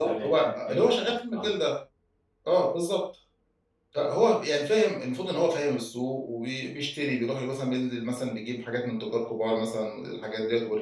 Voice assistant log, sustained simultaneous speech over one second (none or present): present